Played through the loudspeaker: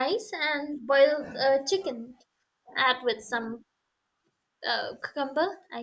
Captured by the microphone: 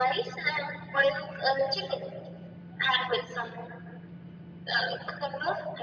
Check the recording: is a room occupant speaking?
No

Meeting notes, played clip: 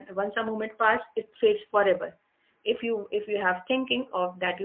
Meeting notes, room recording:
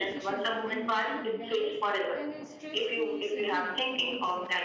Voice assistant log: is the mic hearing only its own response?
No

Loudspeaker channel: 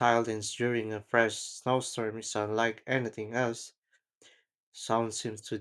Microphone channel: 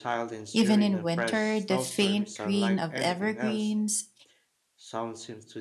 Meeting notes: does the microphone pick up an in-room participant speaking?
Yes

